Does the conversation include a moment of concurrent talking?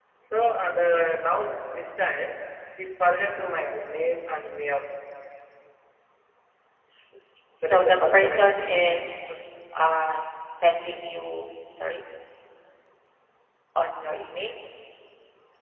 Yes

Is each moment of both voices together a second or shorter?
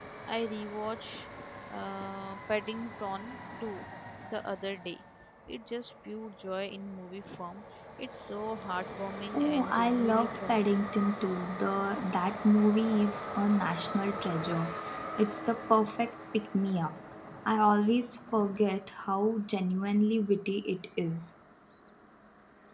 No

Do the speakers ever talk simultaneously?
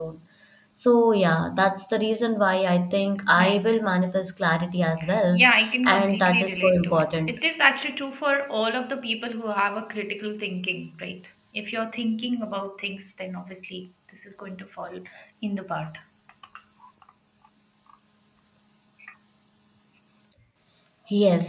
Yes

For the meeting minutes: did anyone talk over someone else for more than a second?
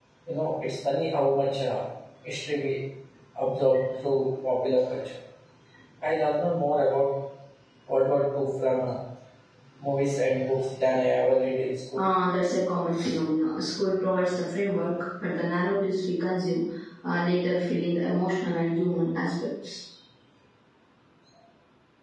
No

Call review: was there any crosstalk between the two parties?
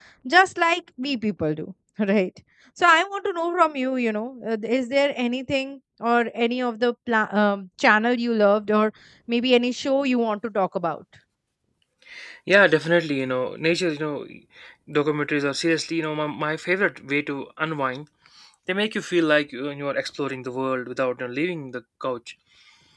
No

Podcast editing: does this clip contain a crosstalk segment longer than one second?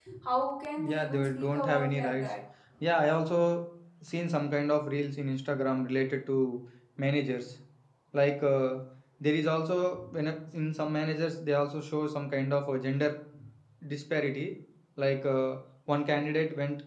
Yes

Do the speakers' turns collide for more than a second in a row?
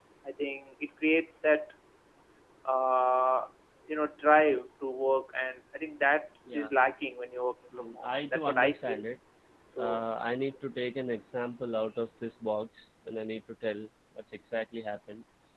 Yes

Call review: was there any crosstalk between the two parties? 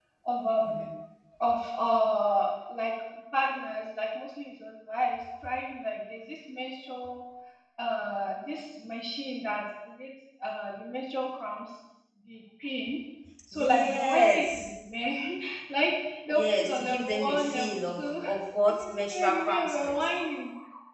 Yes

